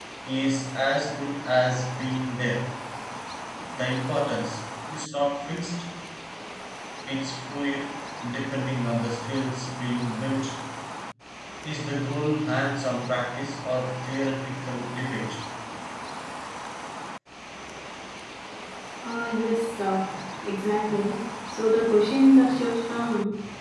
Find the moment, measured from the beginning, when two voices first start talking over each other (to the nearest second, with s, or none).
none